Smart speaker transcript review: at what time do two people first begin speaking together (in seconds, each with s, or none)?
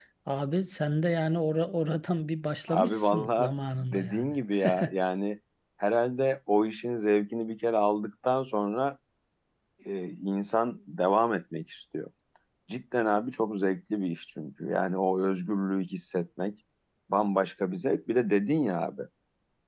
2.7 s